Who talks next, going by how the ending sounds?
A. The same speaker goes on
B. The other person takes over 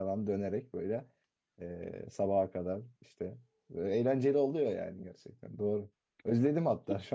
A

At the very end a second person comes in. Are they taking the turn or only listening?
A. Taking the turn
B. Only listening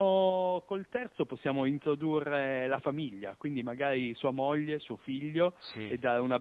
B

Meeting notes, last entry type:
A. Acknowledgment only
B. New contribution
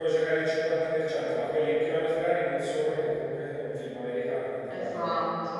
A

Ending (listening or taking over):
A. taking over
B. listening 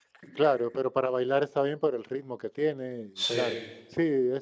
B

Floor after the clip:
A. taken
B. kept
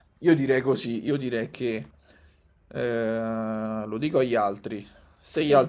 B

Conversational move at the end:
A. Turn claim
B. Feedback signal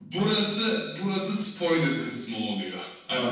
B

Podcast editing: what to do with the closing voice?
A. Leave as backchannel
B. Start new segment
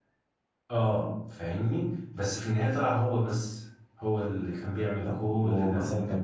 B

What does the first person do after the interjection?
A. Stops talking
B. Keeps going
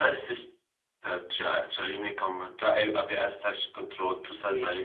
A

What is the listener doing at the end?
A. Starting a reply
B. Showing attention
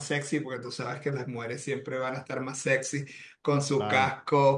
B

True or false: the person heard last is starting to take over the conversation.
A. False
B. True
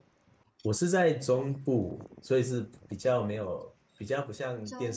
A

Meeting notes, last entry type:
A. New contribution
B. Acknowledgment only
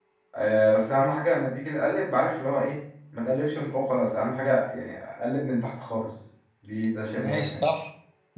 A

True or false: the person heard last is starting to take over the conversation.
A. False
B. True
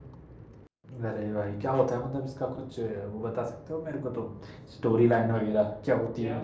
A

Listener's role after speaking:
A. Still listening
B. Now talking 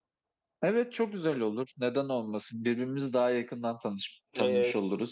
B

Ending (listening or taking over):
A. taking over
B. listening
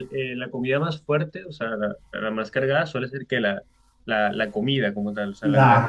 A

